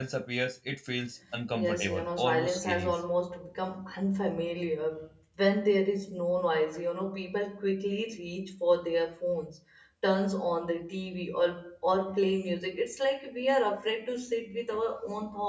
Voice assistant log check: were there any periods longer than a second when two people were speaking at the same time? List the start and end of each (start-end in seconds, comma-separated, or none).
1.5-2.9